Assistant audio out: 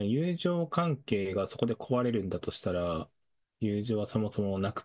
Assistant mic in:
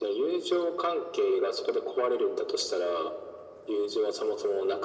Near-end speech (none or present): none